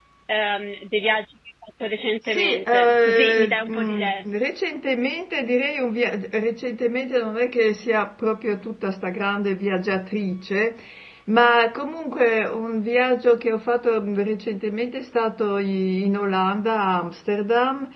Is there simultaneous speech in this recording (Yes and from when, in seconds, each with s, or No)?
Yes, from 2.3 s